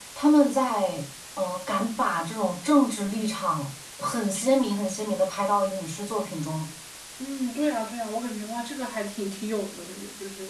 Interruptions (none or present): none